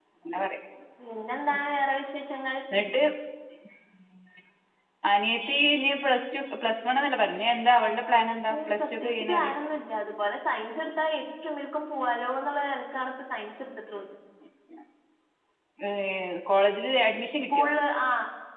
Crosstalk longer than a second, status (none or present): present